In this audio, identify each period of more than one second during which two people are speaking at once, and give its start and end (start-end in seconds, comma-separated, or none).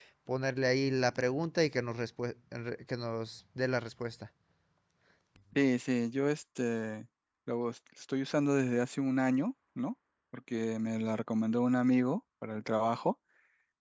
none